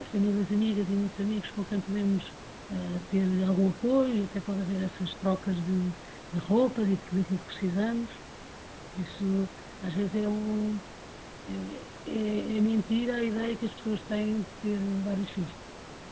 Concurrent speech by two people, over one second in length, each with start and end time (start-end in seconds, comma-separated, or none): none